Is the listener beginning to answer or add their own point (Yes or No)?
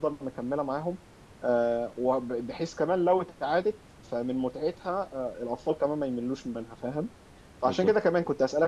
No